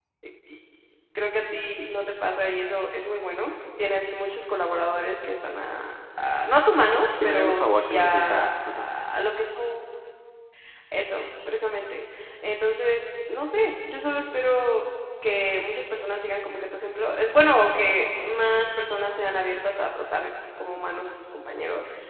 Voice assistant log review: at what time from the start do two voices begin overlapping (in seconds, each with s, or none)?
7.2 s